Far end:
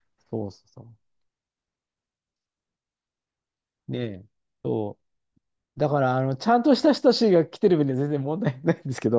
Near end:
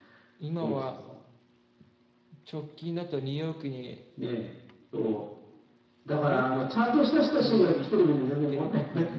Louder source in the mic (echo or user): echo